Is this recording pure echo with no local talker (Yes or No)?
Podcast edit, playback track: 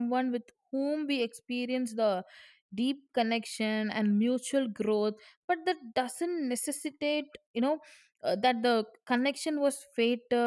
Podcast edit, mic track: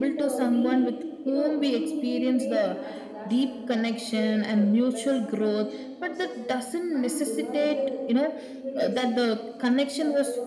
No